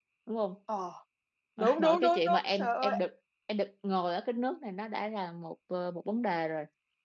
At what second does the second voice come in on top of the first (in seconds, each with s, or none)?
1.8 s